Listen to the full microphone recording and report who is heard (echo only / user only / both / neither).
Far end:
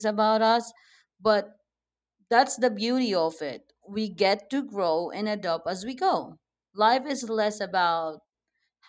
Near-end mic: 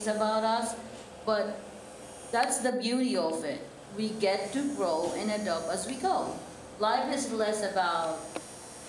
echo only